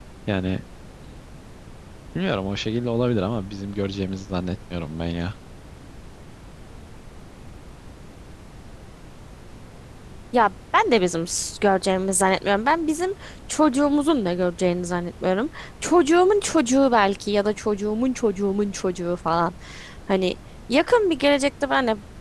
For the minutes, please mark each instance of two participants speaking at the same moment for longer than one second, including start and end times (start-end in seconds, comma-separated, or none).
none